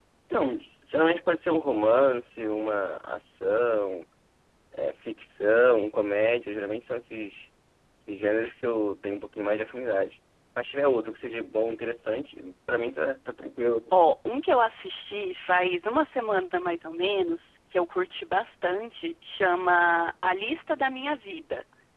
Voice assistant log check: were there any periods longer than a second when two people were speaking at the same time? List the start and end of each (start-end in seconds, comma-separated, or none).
none